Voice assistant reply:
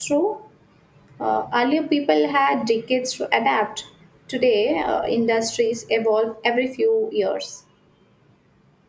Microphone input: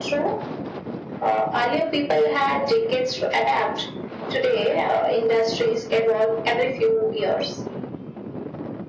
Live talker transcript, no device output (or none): none